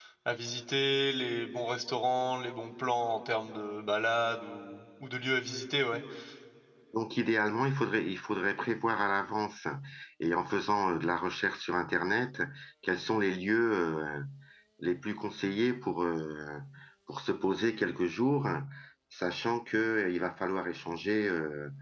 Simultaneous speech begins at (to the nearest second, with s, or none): none